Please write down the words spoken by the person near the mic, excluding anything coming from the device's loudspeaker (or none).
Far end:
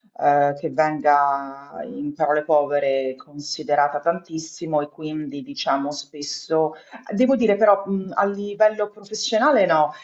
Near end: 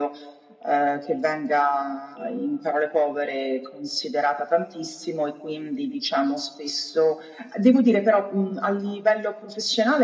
none